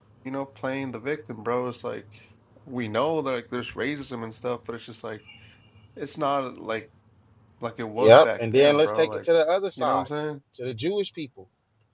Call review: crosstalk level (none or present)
present